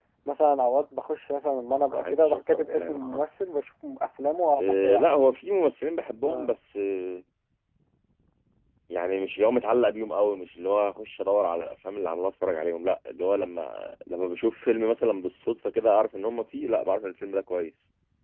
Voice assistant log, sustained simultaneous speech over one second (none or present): present